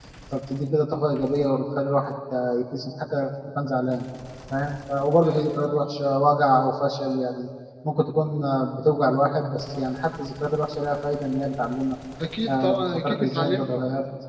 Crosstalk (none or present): present